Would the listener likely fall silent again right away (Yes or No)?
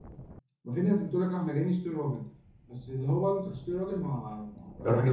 Yes